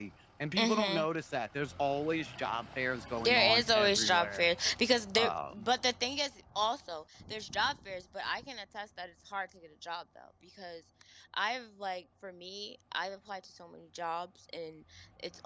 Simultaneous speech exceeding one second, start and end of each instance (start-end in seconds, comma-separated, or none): 3.2-4.5